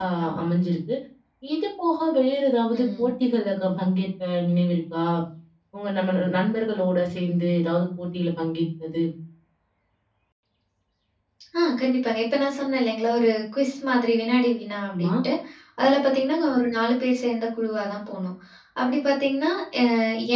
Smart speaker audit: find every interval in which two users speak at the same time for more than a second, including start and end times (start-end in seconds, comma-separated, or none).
none